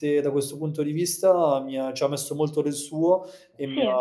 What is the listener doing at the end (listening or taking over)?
listening